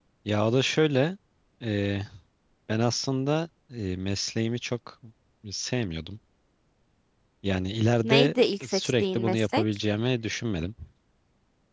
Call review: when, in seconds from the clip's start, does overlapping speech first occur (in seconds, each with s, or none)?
8.0 s